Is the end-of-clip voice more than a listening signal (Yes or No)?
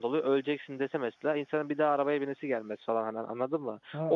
Yes